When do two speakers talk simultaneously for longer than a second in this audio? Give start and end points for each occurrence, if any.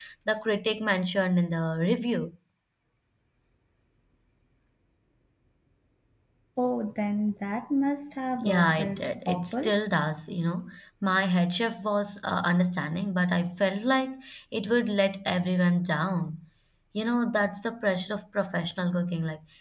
8.4-9.8

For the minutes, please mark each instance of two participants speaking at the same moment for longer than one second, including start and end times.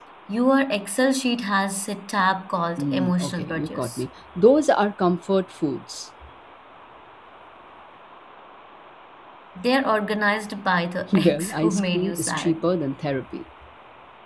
2.8-4.0, 11.1-12.6

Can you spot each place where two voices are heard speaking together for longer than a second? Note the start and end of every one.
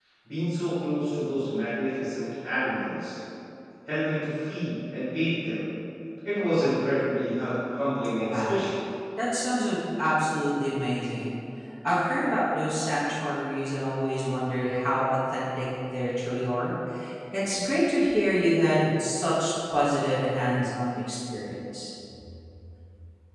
none

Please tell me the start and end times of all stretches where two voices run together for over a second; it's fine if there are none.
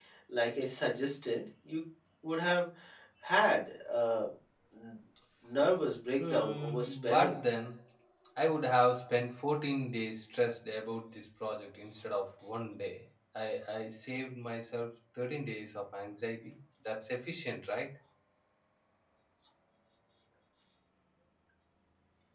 6.2-7.4

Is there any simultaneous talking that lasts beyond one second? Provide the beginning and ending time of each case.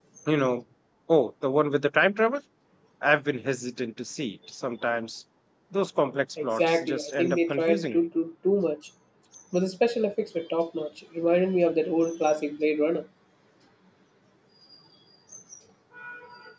6.4-8.1

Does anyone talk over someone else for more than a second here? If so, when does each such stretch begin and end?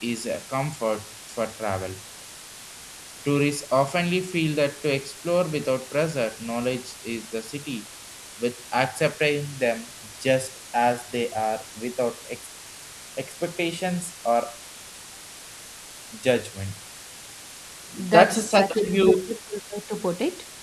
18.1-19.3

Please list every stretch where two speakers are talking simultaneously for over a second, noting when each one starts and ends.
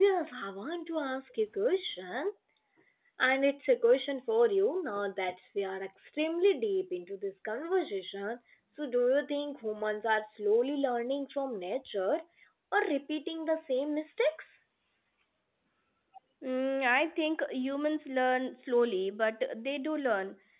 none

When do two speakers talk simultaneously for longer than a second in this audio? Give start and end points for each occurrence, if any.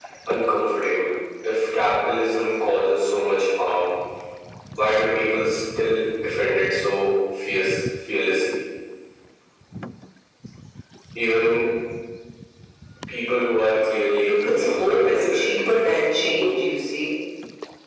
14.2-15.5

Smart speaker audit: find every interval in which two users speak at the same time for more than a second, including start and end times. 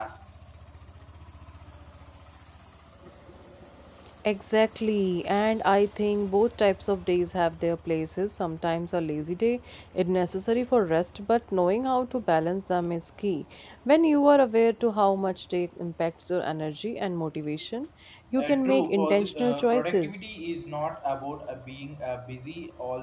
18.4-20.2

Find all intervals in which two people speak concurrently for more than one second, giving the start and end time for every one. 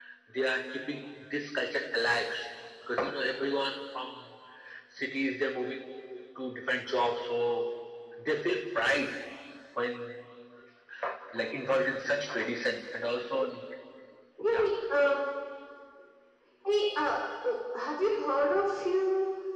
none

